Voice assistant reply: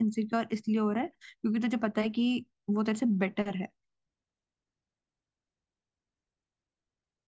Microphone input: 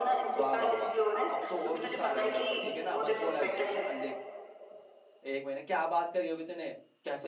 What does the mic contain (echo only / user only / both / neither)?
both